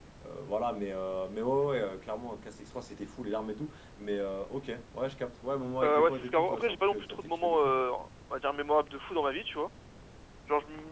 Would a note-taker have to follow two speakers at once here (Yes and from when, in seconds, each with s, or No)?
Yes, from 5.8 s